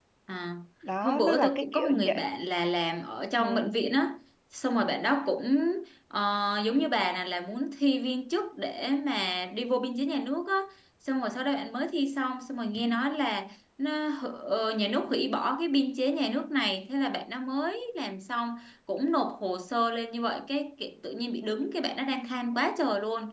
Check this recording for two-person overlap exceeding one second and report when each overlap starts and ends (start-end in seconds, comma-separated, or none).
1.0-2.2